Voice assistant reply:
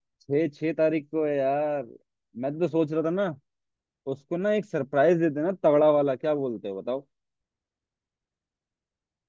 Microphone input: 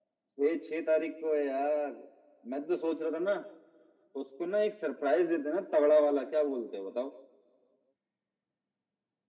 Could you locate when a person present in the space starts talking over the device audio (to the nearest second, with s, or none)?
none